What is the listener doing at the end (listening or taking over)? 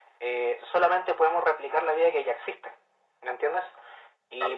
listening